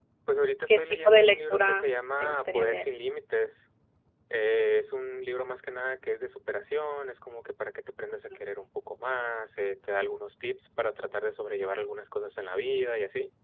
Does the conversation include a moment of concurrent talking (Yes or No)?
Yes